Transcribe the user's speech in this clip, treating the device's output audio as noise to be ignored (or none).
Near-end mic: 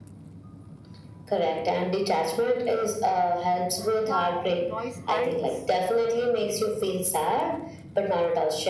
that noise hides.